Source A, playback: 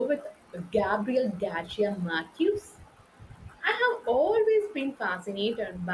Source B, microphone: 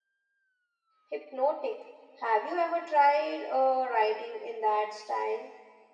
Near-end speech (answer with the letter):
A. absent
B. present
B